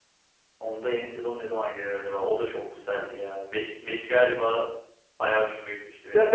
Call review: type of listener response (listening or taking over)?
taking over